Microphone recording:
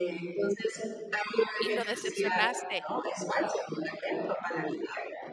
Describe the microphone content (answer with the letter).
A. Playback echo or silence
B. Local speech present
B